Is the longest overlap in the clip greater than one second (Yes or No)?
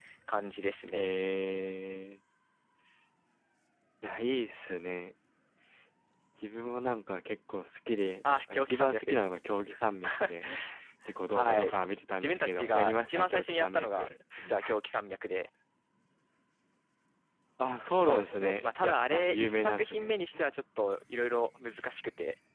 Yes